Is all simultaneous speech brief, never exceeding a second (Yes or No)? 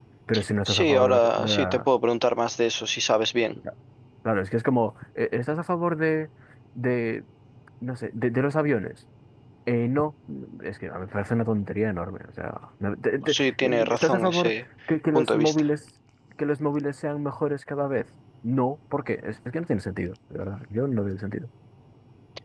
No